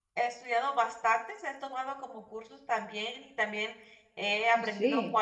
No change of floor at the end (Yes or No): Yes